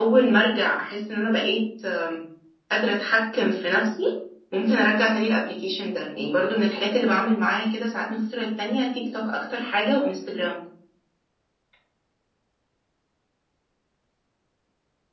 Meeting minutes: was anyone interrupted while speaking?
No

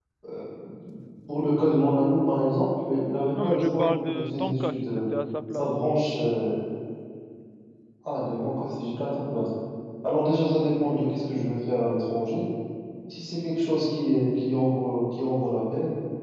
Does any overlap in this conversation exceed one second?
Yes, from 3.4 s

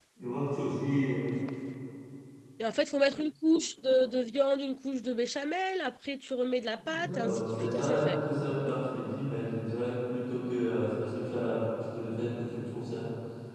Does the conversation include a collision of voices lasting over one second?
Yes, from 6.9 s

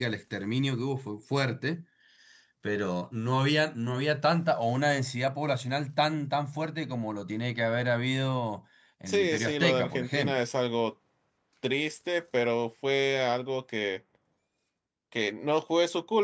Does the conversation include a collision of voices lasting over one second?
Yes, from 9.1 s

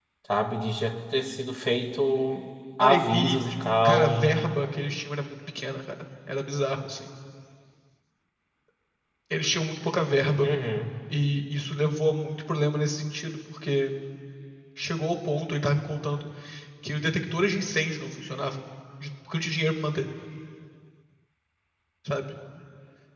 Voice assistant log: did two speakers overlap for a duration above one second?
Yes, from 2.8 s

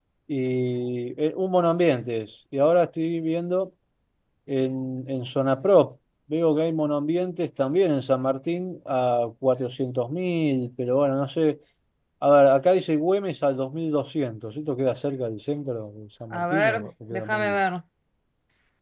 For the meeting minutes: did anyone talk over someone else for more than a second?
Yes, from 16.3 s

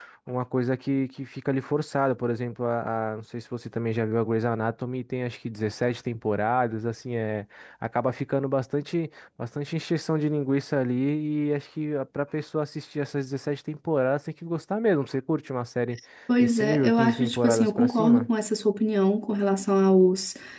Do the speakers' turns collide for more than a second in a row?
Yes, from 16.4 s

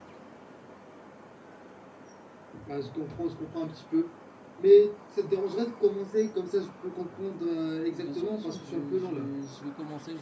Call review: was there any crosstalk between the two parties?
Yes, from 7.9 s

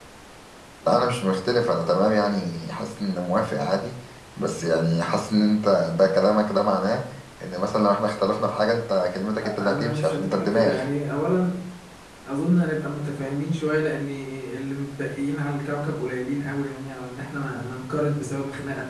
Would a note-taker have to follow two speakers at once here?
Yes, from 9.4 s

